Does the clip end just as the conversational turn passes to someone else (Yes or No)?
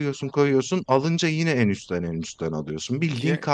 No